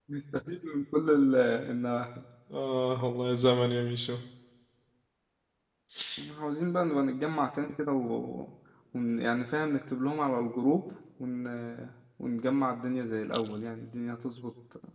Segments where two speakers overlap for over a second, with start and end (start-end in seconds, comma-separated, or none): none